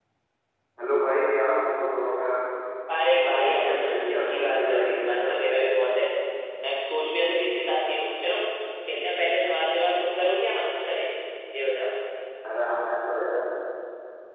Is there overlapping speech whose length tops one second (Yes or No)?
Yes